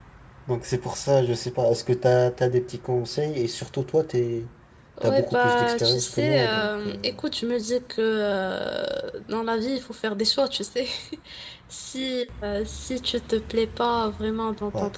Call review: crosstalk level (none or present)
present